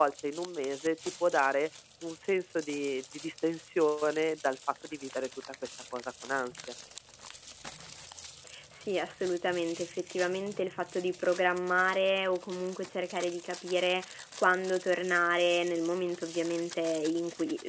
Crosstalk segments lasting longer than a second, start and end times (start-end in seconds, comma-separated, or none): none